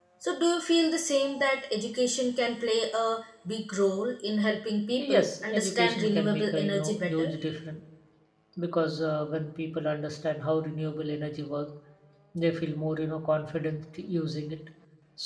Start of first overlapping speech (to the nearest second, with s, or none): 5 s